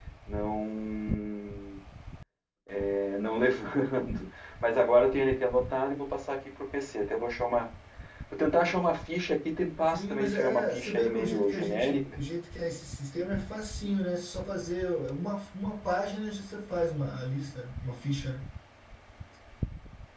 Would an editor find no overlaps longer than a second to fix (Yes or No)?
No